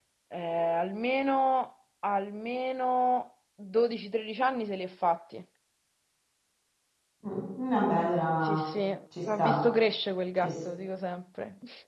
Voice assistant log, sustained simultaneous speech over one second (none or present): none